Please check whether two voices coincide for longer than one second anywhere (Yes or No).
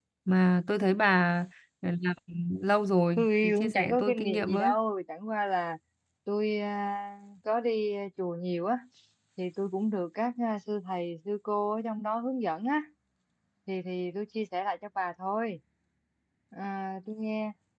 Yes